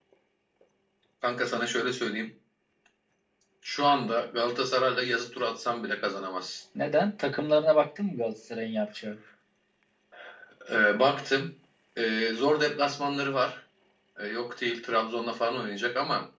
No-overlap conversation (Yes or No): Yes